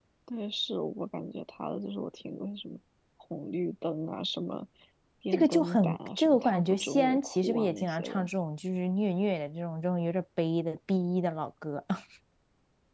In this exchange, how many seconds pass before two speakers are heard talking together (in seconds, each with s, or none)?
5.3 s